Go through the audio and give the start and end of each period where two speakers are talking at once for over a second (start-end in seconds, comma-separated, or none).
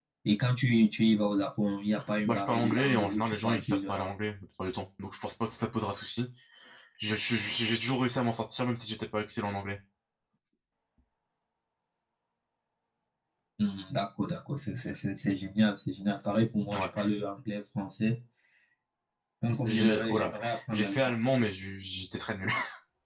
2.2-4.1, 19.6-21.4